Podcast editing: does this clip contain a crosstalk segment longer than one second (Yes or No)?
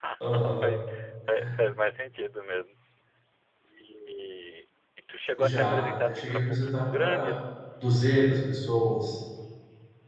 Yes